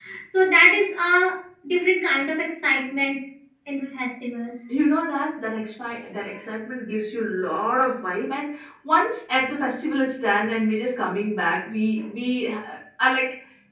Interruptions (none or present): none